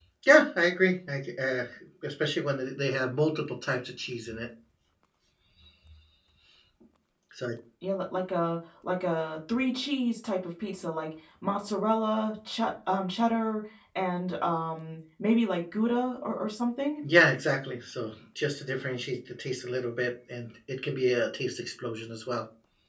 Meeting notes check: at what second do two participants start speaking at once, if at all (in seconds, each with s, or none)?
none